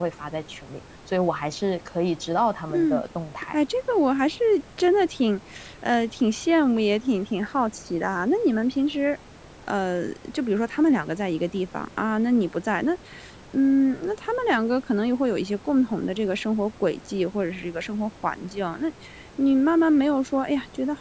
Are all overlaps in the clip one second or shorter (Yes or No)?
Yes